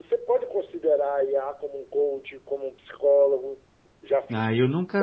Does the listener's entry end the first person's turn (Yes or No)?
Yes